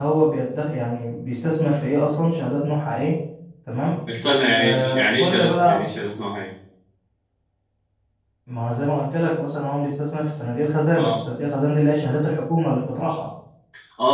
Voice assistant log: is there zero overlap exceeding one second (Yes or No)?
No